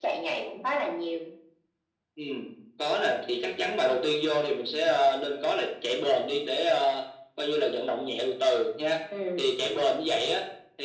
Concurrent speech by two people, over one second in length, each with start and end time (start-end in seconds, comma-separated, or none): none